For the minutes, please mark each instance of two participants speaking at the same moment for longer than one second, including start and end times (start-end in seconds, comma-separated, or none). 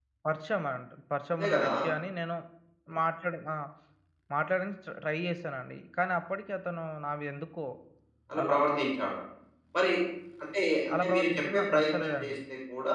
10.9-12.4